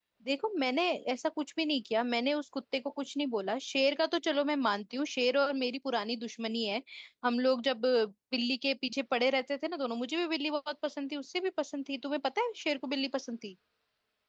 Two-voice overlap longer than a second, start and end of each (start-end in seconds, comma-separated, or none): none